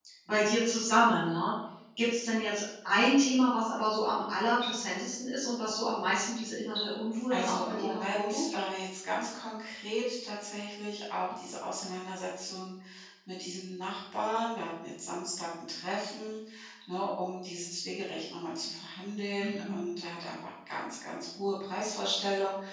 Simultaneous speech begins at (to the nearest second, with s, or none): 7 s